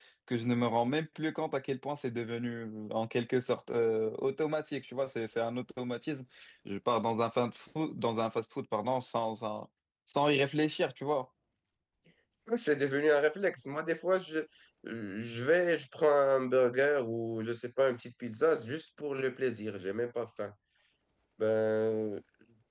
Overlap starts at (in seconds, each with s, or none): none